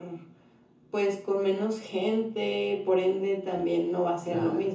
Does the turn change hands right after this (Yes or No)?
No